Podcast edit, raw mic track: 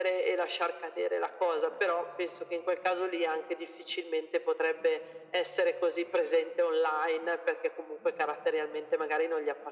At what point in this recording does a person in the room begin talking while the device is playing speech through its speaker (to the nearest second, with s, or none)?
none